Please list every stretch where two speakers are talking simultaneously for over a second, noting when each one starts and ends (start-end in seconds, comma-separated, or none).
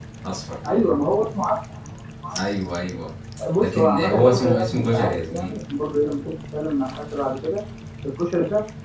3.6-5.6